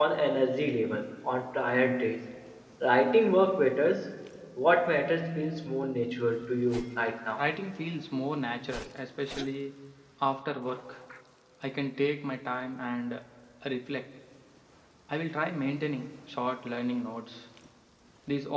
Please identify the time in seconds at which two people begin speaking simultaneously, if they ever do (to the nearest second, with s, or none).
none